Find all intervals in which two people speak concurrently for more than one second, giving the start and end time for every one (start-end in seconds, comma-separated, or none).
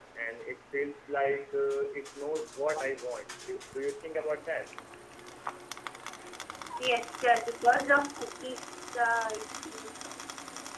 none